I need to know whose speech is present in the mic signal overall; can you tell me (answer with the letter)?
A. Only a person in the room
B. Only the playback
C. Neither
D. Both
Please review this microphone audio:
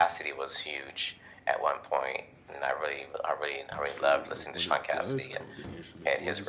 D